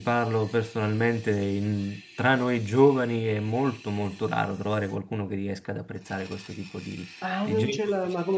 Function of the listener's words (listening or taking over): taking over